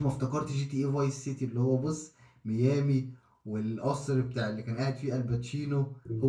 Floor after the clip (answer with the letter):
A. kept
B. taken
B